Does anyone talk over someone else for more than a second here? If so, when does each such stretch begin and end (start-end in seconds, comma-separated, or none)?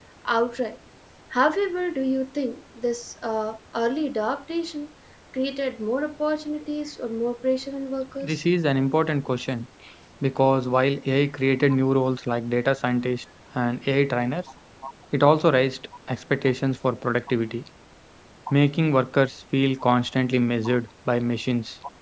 none